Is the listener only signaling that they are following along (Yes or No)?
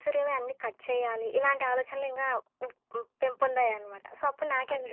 No